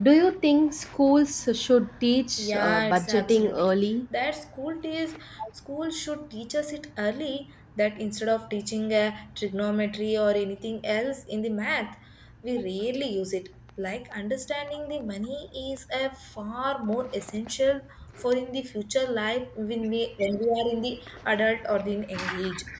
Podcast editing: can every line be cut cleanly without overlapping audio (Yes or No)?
No